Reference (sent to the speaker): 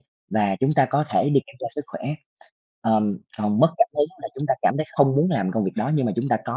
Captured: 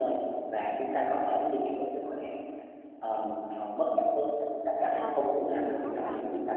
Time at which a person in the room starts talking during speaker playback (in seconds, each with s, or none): 4.8 s